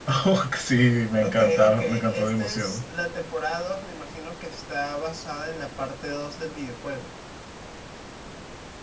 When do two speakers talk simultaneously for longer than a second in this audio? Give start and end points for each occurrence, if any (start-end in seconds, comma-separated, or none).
1.2-2.8